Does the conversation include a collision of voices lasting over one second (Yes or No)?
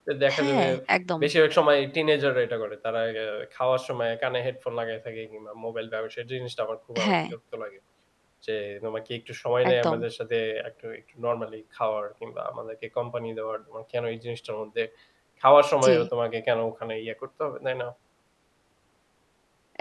No